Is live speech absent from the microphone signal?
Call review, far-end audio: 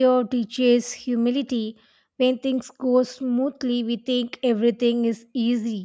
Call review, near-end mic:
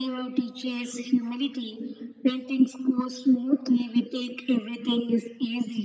Yes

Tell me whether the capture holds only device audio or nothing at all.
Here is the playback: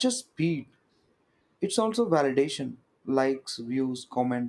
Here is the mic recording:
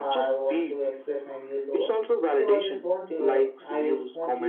No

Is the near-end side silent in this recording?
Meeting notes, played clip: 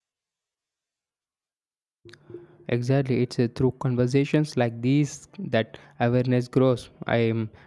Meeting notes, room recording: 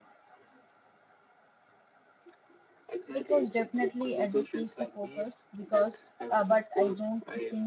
No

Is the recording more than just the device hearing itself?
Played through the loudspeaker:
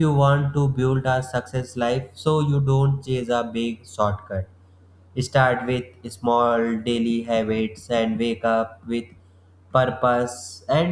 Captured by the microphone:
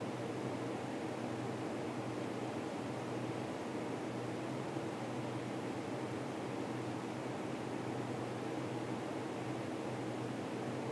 No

